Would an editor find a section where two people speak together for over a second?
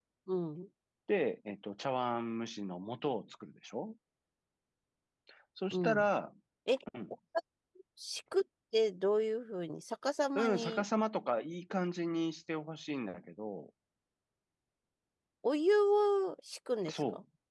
No

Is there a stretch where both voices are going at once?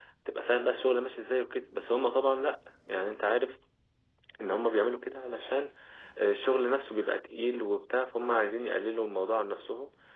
No

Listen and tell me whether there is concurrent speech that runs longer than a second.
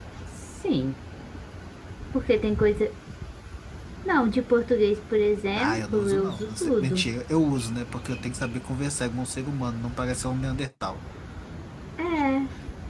Yes, from 5.6 s

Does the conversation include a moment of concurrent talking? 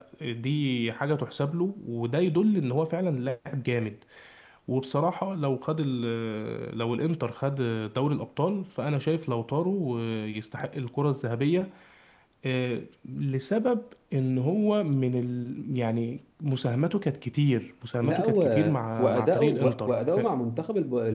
Yes, from 18.0 s

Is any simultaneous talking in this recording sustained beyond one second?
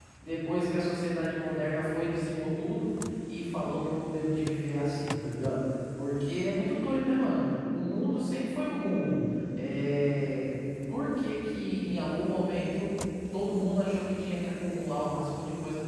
No

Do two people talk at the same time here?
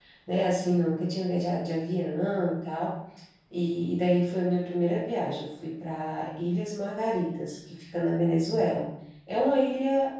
No

